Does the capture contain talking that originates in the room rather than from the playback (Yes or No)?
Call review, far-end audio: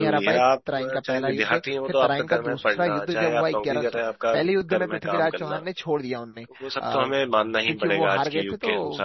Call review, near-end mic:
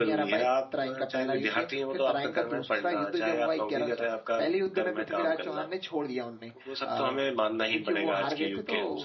No